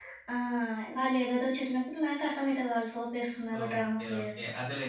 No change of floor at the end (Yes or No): No